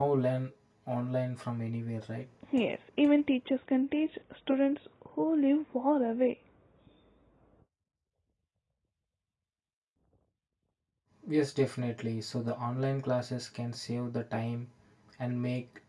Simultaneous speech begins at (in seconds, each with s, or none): none